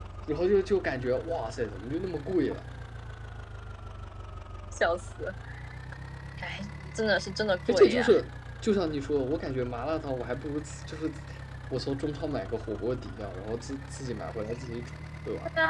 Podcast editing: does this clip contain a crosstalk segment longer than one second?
No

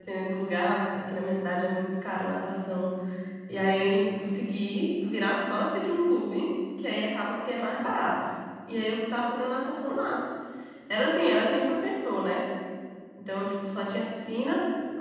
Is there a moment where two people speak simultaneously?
No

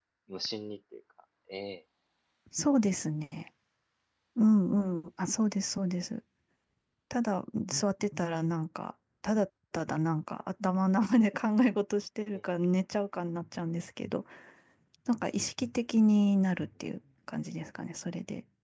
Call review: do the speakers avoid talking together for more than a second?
Yes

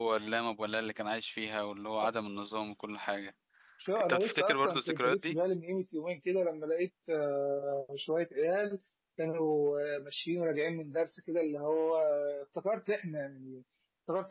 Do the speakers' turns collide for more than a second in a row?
Yes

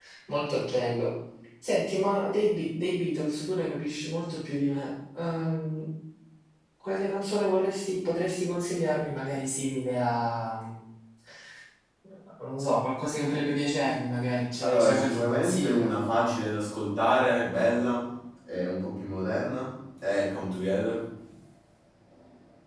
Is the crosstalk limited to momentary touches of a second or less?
No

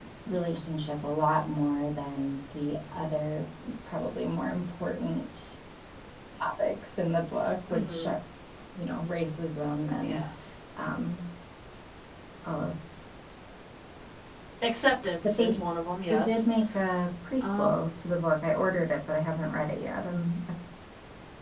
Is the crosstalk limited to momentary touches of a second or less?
Yes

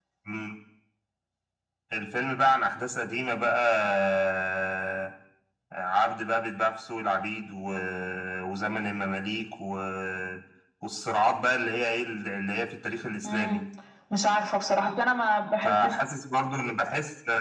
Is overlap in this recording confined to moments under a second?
Yes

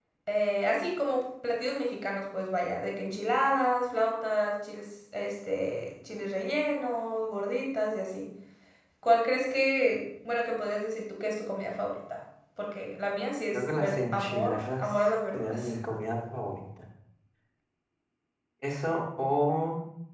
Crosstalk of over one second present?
Yes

